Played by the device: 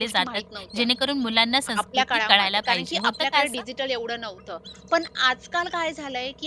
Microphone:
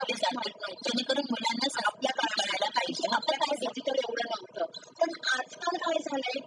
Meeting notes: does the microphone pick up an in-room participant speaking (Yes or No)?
No